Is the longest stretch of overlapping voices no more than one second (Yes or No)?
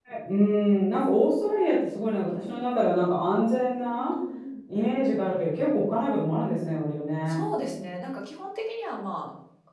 Yes